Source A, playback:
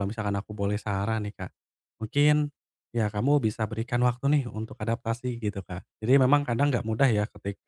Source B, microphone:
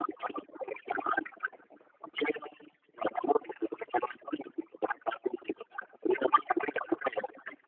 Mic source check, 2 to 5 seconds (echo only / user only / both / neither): echo only